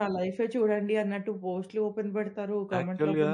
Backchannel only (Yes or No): No